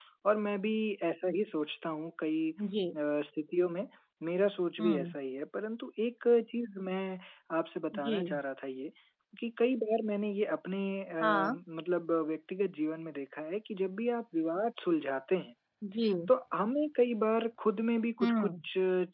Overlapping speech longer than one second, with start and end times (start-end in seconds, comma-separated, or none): none